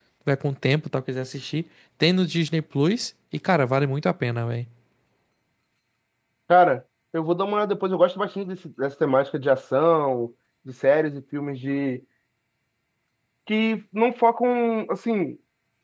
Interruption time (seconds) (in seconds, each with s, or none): none